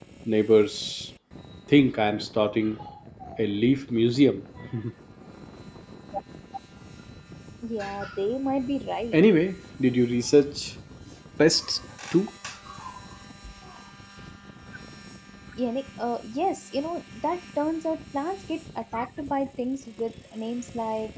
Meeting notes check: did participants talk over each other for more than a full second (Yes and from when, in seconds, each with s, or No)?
No